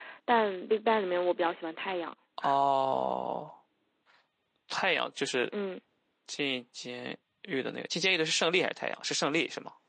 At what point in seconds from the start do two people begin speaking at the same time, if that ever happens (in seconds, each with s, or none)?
none